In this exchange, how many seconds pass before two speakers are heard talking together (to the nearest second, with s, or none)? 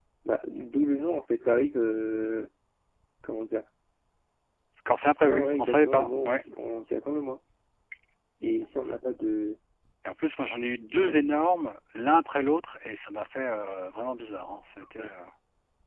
5 s